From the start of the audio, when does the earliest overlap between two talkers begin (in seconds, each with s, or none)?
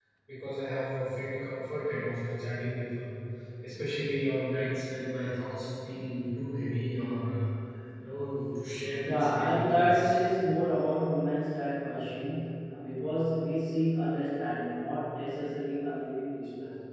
9.0 s